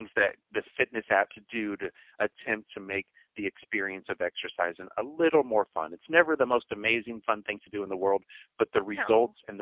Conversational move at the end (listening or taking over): listening